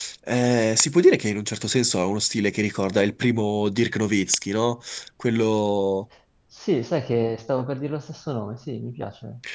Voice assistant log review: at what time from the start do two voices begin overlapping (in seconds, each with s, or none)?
none